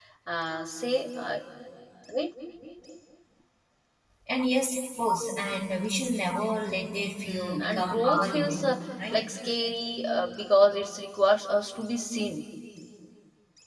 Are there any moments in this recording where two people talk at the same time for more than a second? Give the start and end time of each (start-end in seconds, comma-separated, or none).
7.2-8.6